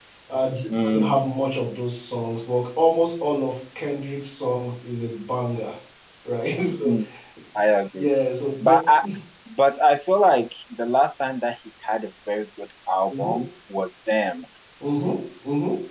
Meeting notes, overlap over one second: none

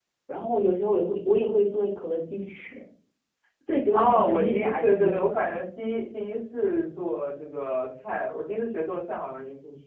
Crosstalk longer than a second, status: present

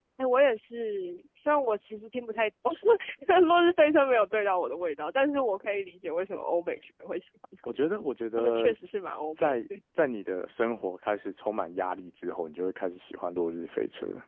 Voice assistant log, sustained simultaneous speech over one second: none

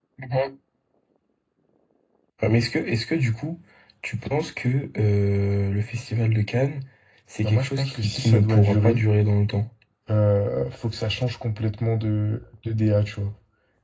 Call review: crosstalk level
present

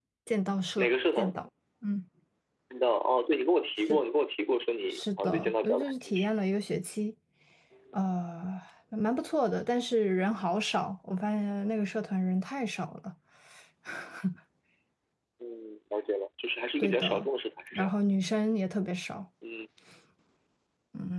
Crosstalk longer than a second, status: present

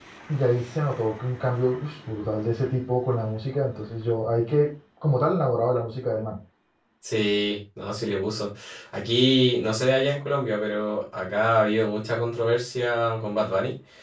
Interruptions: none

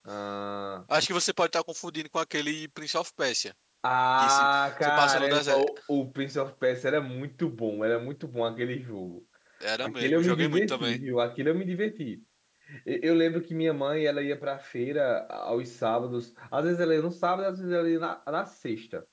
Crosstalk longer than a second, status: present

